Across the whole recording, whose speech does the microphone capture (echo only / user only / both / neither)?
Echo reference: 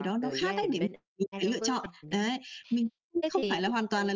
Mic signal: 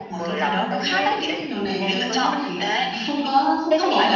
both